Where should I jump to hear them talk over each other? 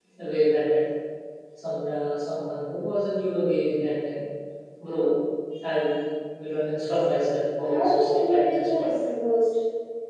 7.6 s

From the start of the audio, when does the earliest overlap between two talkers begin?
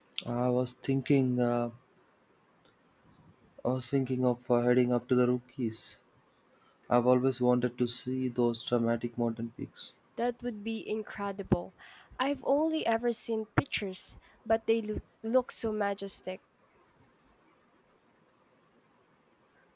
none

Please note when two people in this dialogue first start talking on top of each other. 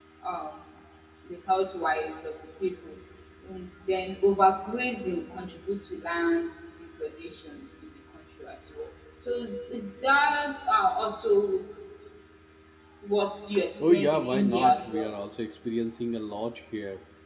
13.9 s

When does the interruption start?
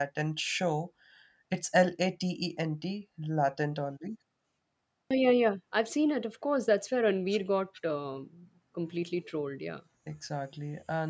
none

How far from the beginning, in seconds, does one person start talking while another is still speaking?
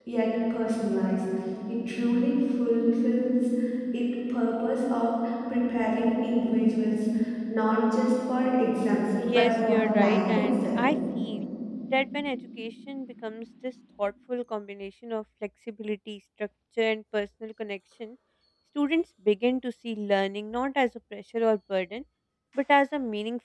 9.2 s

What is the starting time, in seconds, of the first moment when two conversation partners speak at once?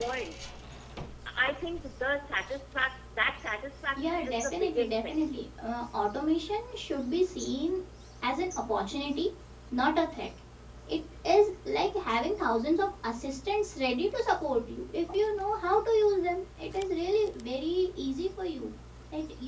4.0 s

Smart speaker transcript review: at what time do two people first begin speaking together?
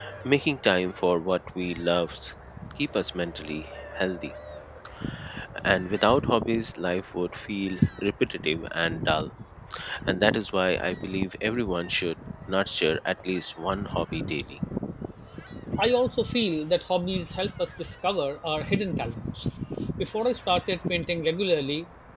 none

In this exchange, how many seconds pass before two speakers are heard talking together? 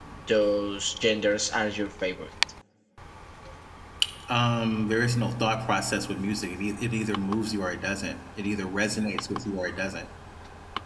none

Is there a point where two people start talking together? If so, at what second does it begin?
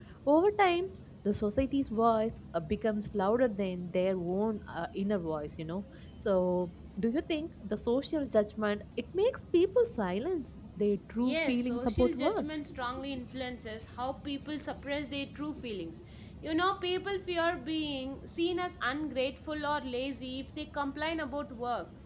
11.2 s

